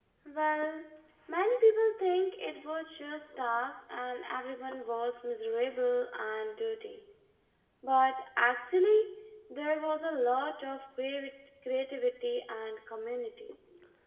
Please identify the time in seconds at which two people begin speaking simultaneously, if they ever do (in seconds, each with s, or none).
none